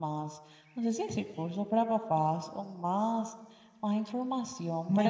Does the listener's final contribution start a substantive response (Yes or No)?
Yes